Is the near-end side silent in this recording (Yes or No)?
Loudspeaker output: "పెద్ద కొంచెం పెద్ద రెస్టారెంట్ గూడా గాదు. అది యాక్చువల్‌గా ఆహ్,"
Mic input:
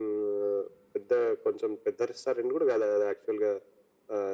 Yes